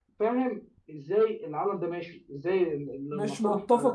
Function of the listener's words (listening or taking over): taking over